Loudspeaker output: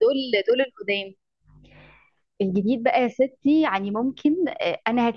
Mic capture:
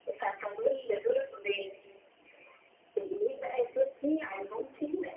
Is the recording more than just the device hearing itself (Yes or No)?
No